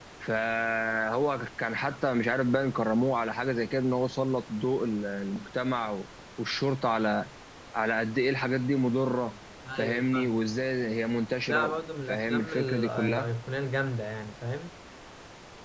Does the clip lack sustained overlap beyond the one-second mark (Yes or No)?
No